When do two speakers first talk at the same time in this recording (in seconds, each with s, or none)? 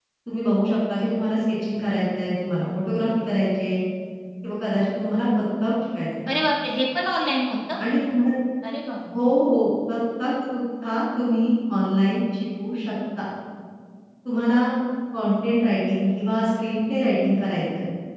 none